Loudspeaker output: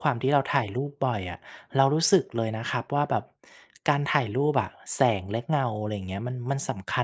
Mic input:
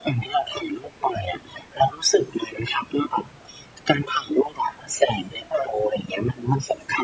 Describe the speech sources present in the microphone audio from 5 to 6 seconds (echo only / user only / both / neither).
echo only